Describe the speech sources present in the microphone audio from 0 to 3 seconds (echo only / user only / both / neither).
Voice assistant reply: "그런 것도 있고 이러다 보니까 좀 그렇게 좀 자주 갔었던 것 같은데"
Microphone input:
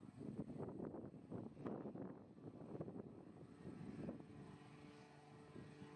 neither